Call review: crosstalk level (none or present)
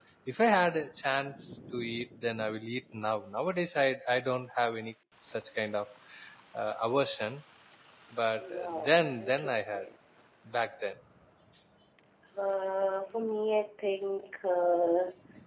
present